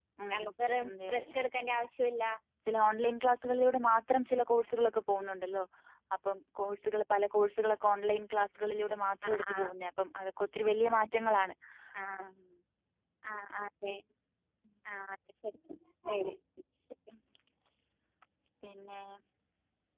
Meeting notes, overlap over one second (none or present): none